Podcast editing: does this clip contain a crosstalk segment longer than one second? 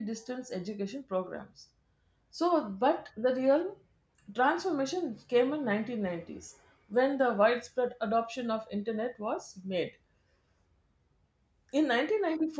No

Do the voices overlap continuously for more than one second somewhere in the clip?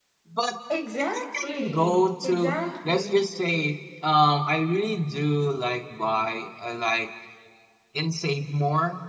Yes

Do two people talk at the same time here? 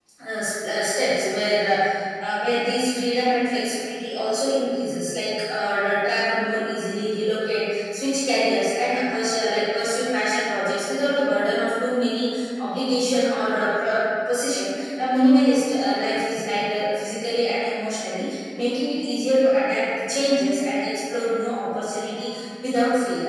No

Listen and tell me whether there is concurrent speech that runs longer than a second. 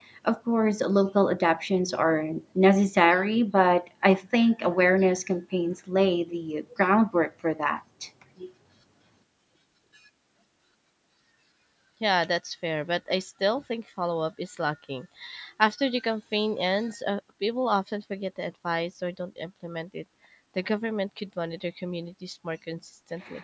No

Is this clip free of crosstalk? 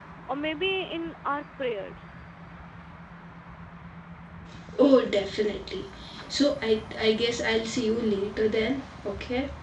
Yes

